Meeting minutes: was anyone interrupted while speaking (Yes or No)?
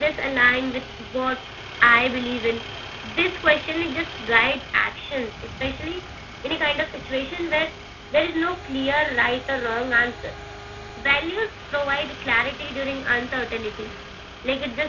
No